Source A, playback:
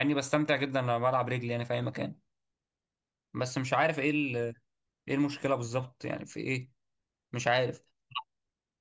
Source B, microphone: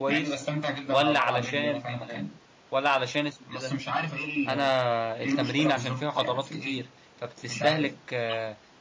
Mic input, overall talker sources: both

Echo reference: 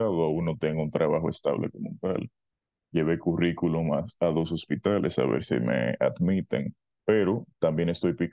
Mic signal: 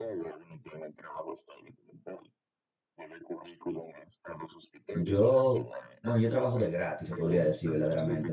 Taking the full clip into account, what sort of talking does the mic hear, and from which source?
both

